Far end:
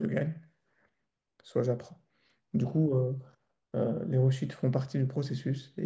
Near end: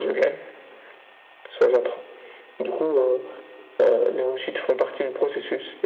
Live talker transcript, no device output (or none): none